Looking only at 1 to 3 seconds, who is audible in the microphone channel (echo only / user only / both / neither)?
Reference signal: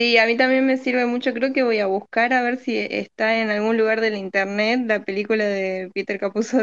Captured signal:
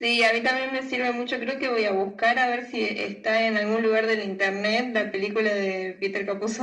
echo only